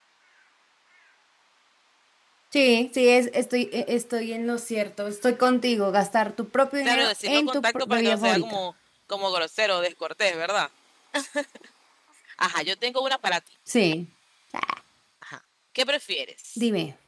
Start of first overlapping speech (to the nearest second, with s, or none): 7 s